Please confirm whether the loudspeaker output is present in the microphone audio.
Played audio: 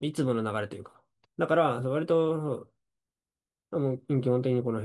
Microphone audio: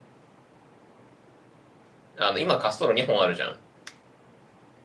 No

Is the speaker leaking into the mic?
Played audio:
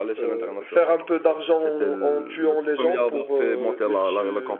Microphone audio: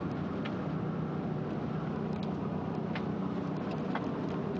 No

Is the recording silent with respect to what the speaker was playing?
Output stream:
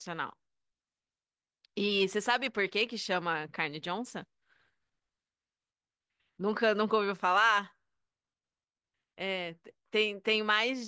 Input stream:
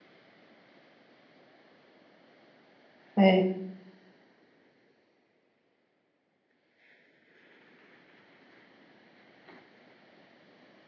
Yes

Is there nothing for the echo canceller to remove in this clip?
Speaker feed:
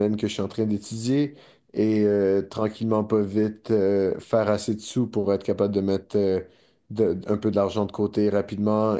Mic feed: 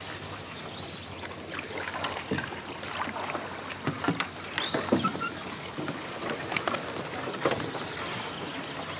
Yes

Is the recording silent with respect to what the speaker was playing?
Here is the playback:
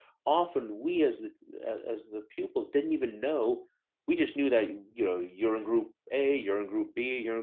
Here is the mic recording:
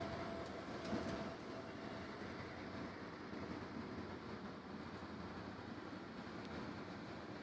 Yes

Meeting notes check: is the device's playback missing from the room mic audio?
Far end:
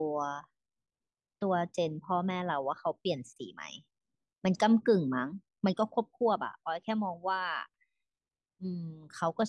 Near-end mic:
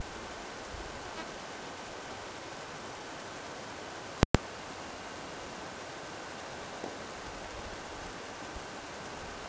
Yes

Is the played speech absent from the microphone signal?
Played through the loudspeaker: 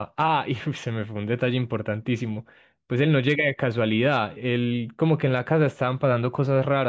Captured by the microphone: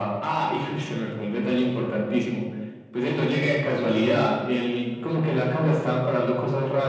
No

